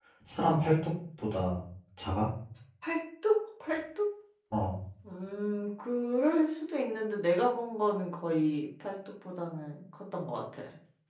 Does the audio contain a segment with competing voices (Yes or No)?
No